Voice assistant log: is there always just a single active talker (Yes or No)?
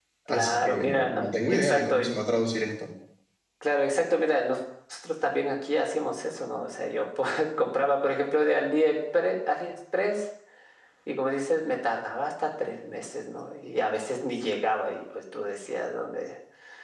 No